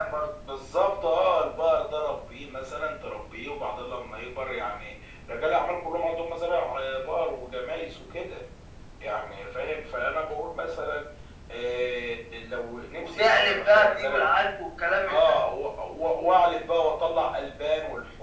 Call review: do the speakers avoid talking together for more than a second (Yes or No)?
No